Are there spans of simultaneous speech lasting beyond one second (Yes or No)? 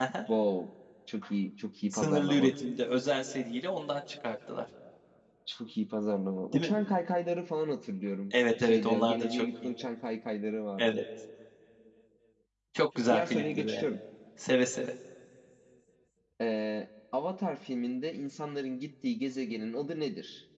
Yes